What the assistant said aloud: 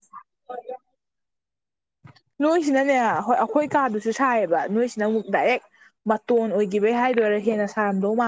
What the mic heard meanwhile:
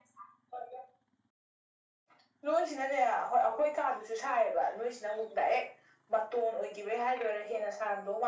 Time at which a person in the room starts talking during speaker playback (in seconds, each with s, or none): none